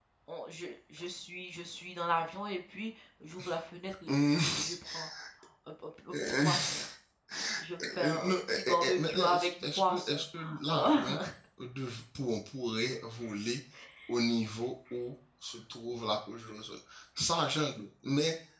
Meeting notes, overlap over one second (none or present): present